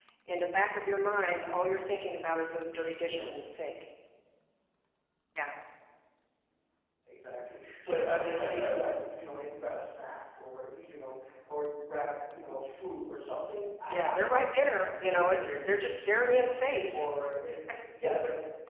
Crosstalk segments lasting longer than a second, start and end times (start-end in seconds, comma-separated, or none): 13.9-16.3